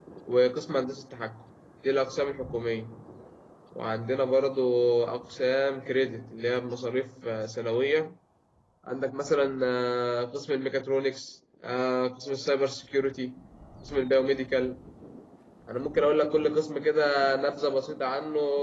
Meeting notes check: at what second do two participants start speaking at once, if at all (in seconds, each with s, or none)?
none